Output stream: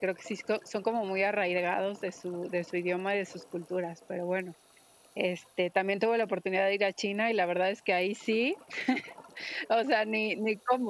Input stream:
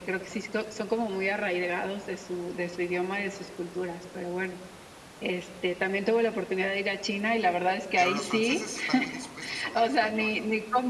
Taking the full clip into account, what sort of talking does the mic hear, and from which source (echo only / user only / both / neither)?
both